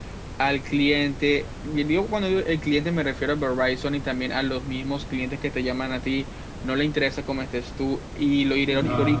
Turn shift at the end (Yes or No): No